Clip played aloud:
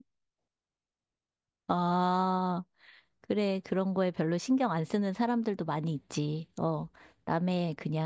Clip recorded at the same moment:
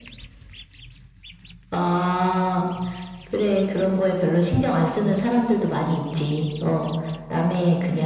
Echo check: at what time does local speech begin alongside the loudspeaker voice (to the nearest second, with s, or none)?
none